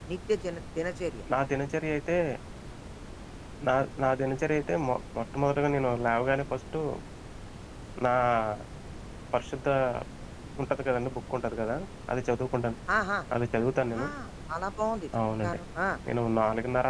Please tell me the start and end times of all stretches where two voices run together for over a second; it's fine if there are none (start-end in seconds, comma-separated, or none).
none